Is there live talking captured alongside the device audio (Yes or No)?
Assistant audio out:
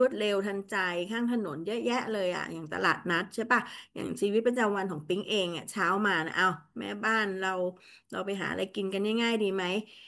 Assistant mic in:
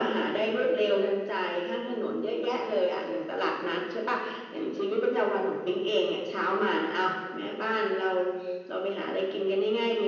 No